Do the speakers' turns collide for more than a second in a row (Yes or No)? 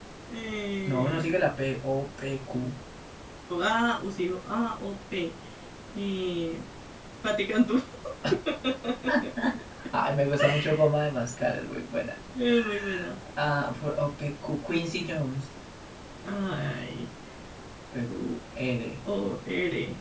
No